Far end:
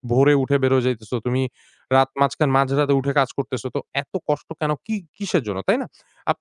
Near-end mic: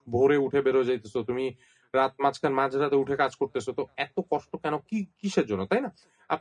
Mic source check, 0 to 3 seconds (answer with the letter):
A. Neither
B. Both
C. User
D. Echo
D